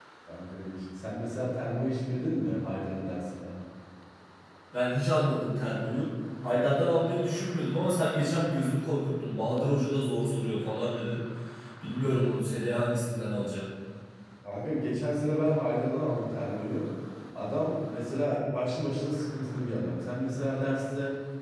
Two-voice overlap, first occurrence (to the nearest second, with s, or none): none